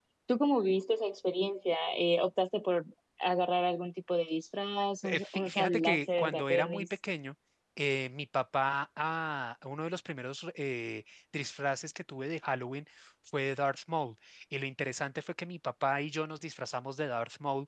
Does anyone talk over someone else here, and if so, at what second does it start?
5.0 s

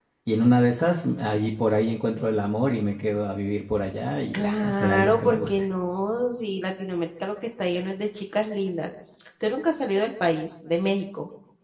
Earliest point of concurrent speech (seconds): 4.3 s

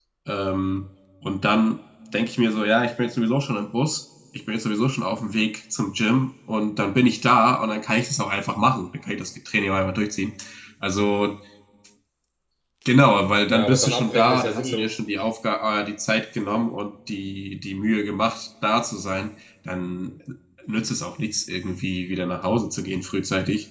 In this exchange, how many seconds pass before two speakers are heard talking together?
13.5 s

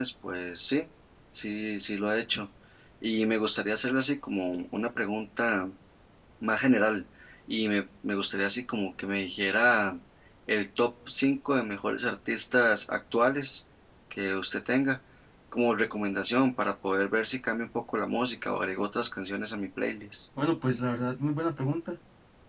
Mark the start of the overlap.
none

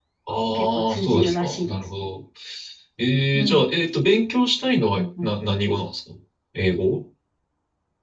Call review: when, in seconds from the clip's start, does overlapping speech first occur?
0.5 s

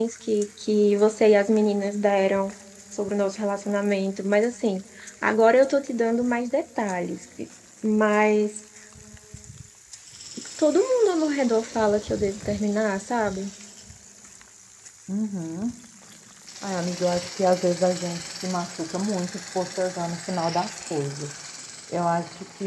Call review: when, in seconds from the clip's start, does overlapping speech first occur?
none

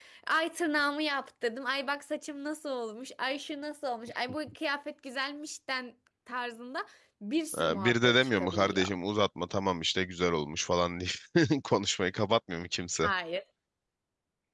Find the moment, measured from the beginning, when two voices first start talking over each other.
7.5 s

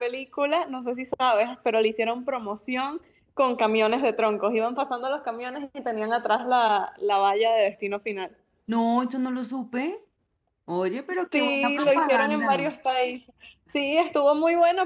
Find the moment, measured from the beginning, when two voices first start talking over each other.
11.3 s

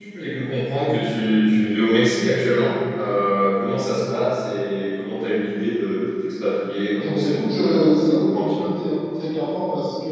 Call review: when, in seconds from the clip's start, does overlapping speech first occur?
7.0 s

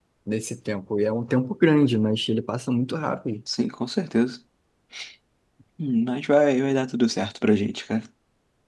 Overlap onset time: none

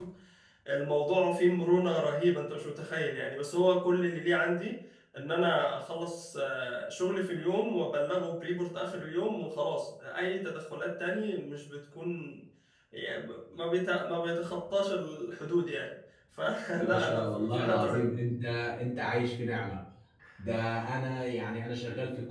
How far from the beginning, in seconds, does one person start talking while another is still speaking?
16.8 s

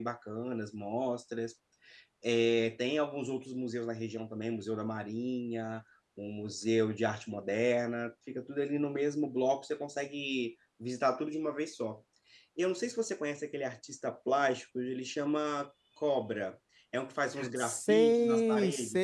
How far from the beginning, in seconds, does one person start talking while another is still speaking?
17.4 s

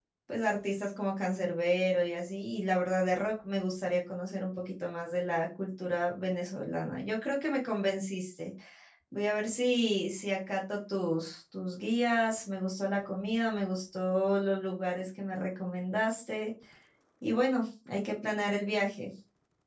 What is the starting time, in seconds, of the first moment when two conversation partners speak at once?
none

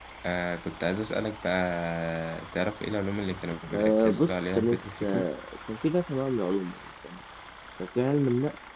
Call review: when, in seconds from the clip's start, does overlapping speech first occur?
3.7 s

